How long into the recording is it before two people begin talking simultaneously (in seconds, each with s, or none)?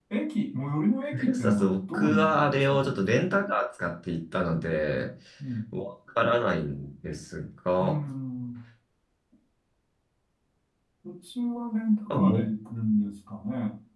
1.3 s